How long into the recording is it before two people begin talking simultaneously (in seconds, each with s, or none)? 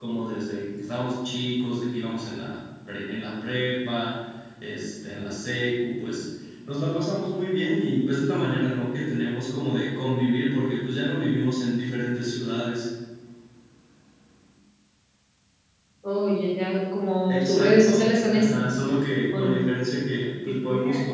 17.3 s